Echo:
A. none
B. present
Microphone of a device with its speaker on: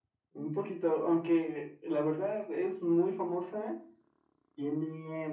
B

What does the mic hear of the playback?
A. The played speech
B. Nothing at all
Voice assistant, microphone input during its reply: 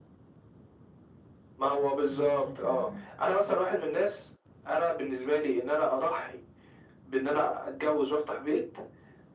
A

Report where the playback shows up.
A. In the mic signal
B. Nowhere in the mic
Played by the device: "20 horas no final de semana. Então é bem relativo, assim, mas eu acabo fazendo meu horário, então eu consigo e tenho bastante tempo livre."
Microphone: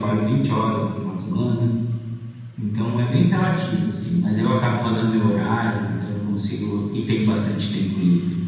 A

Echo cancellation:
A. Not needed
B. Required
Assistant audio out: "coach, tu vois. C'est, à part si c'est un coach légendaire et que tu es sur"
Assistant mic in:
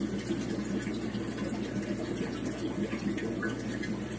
A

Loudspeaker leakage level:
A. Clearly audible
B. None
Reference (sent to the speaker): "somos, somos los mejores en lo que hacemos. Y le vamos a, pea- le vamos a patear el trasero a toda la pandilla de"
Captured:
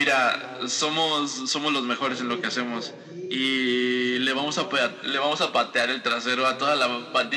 A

